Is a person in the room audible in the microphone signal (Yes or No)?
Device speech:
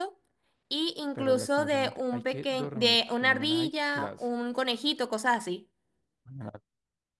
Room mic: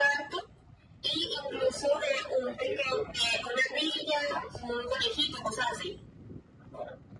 No